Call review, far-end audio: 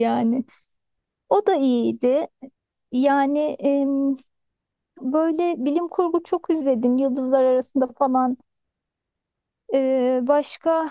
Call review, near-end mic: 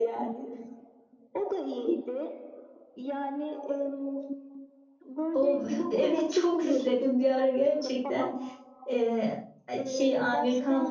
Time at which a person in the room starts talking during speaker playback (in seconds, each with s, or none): 5.3 s